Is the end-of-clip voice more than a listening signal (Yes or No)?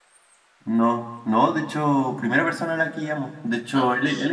No